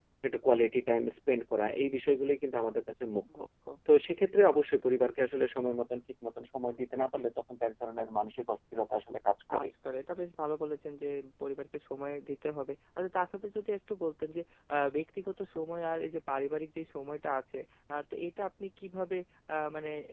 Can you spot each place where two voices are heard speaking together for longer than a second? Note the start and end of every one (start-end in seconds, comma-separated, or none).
none